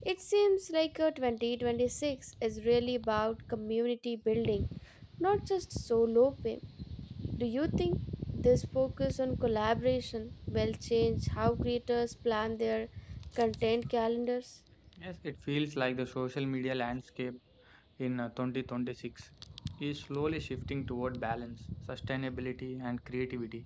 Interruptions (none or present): none